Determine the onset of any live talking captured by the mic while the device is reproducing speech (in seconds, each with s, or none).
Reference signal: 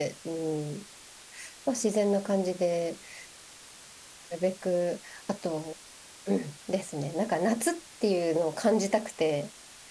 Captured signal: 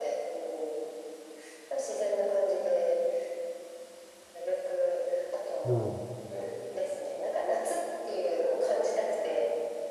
5.6 s